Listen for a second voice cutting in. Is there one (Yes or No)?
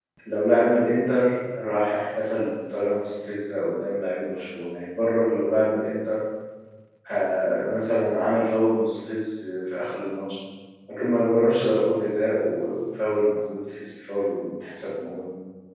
No